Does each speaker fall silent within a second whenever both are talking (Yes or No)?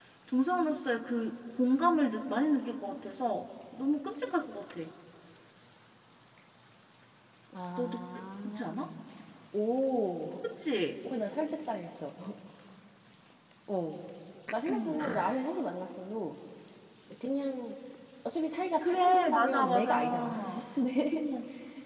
No